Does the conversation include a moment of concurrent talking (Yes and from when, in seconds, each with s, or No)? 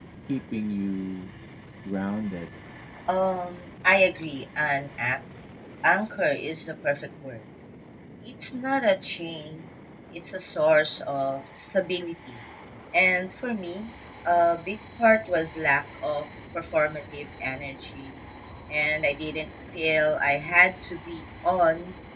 No